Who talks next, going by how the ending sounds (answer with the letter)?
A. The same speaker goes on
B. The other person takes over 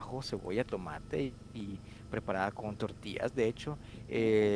A